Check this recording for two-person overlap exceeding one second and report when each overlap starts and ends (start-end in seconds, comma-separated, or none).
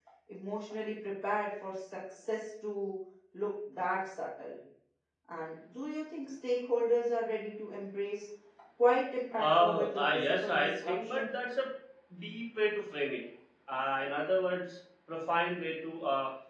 9.4-11.3